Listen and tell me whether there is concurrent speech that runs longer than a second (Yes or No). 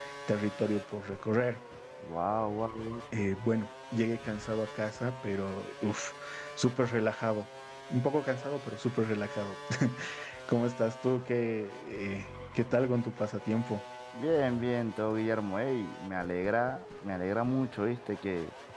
No